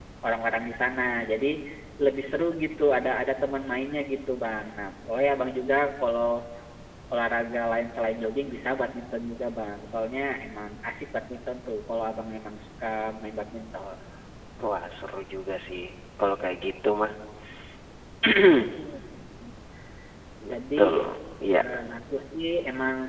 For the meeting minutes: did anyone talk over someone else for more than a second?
No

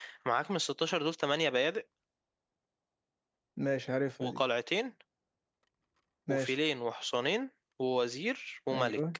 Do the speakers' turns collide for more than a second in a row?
No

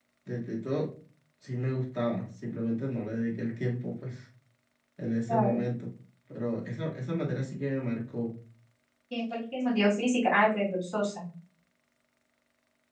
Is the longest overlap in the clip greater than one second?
No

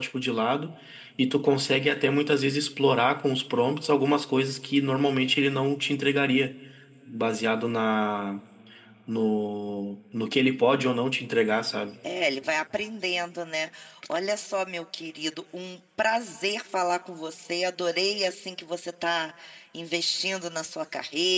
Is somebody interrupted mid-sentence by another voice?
No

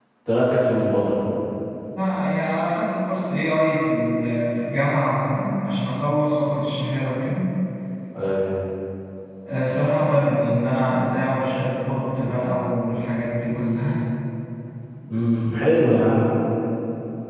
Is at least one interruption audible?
No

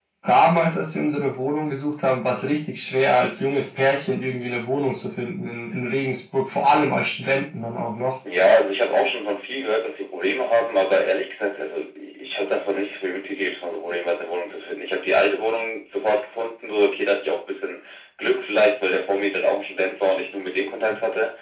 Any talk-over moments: No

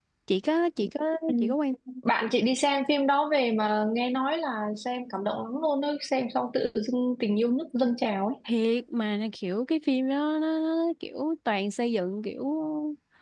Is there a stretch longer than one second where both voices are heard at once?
No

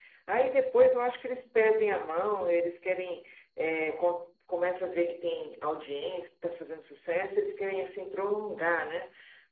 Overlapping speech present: No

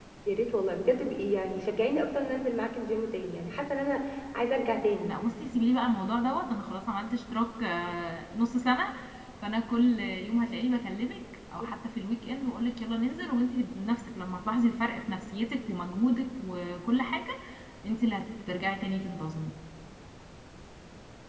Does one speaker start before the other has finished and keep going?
No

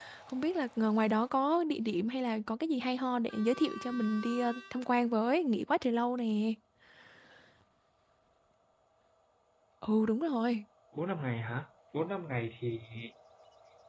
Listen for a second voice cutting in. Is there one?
No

